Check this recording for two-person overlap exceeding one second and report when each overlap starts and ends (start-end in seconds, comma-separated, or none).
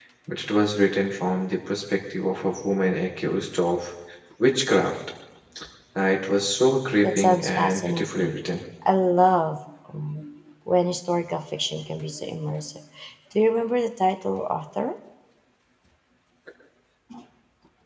7.0-8.4